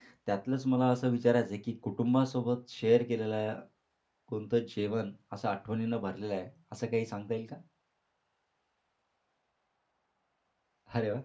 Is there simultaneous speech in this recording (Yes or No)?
No